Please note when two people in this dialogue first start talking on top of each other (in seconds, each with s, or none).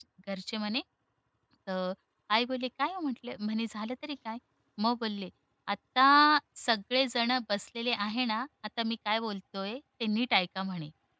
none